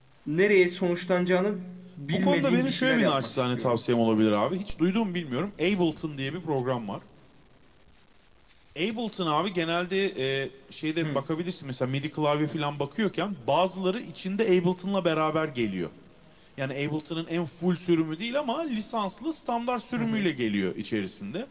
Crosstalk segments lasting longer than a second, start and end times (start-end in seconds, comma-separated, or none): 2.1-3.8